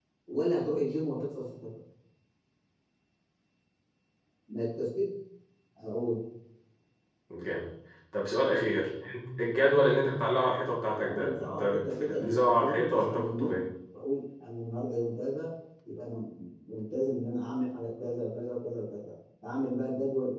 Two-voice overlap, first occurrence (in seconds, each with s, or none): 10.9 s